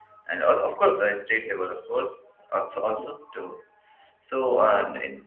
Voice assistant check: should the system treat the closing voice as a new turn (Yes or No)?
No